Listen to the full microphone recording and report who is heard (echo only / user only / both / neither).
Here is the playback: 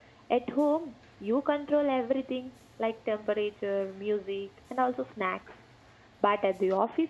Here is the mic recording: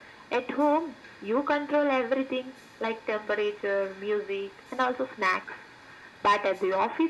echo only